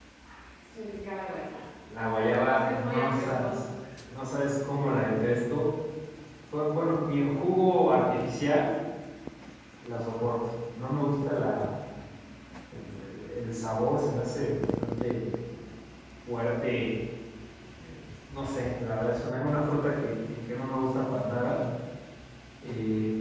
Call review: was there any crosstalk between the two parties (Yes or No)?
Yes